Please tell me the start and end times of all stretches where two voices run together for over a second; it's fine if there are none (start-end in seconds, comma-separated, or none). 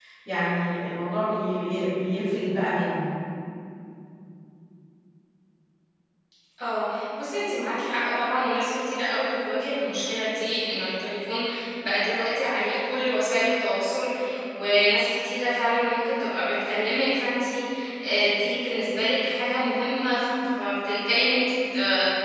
none